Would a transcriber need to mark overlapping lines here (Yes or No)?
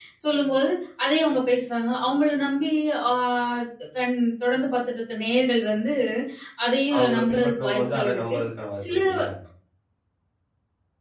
Yes